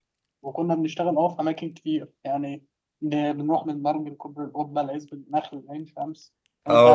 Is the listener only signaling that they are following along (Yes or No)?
No